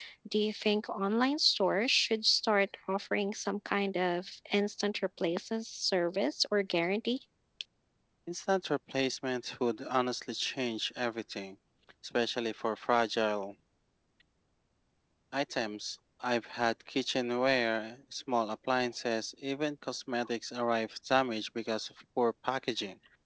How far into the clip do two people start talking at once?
none

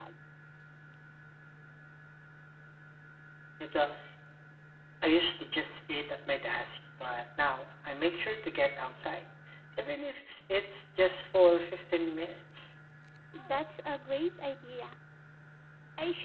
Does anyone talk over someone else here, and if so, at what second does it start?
none

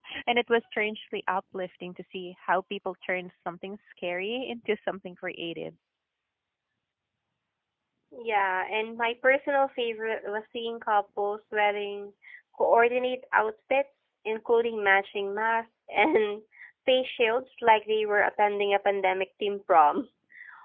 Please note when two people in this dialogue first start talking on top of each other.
none

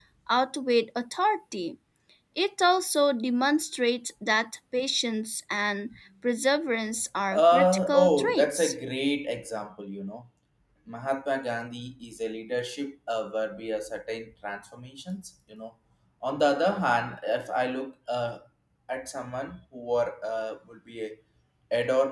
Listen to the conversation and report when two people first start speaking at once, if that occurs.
7.3 s

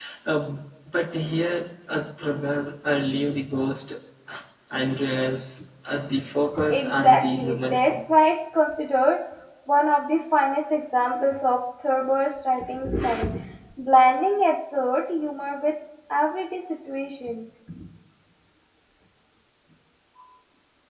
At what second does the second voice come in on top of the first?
6.7 s

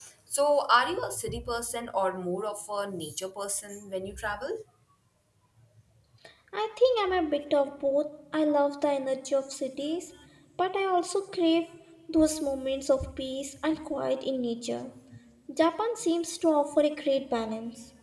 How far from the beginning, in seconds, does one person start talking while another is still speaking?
none

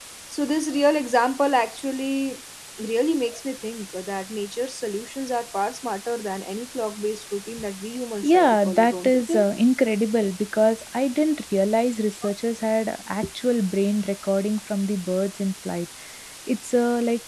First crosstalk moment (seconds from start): 8.2 s

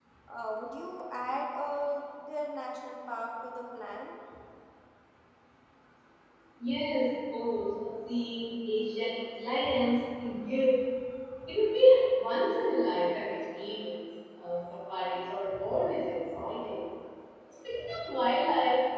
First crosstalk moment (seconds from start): none

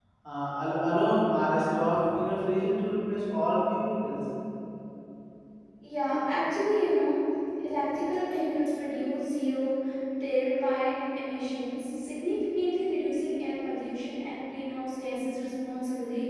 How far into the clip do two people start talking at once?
none

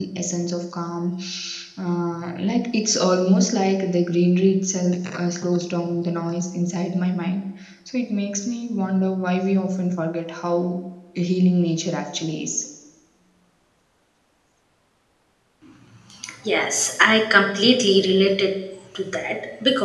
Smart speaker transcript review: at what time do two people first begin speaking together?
none

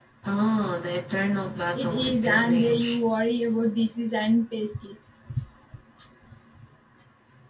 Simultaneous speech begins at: 1.7 s

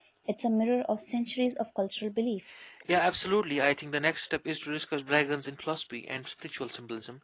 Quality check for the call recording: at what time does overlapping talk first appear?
none

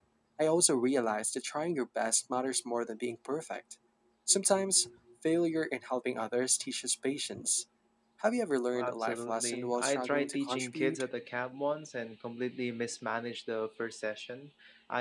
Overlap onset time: 8.7 s

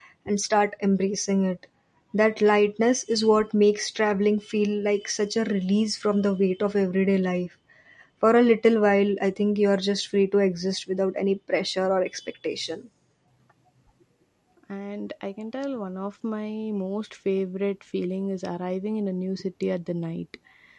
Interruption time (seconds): none

